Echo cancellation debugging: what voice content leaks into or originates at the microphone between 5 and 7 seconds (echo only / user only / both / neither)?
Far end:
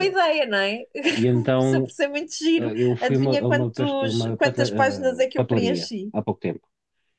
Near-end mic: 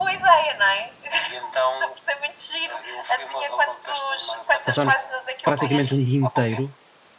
both